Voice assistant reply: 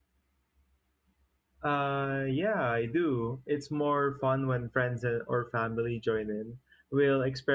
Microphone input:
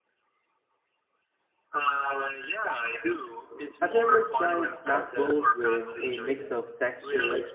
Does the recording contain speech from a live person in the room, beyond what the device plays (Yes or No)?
Yes